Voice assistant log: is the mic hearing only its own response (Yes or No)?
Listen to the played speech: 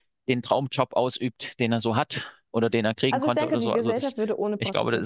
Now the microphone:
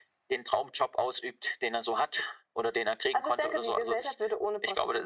Yes